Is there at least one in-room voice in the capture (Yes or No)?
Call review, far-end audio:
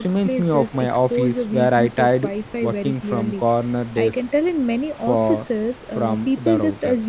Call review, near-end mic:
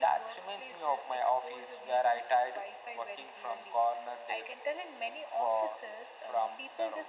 No